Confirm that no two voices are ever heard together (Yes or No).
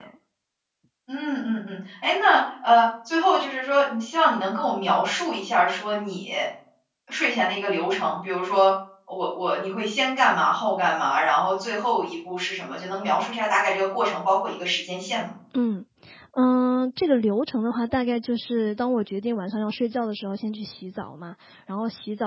Yes